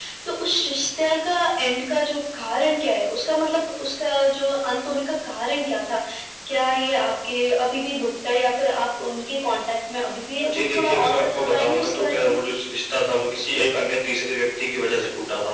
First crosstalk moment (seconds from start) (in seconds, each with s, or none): 10.4 s